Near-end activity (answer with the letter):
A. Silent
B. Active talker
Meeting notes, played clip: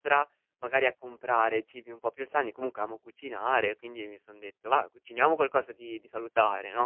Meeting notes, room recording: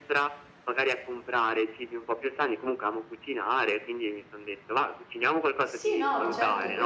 B